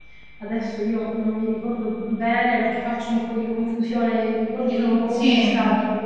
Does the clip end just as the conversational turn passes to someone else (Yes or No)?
No